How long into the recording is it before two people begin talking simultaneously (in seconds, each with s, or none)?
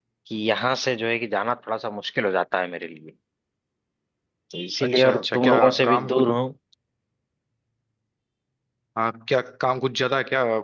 4.9 s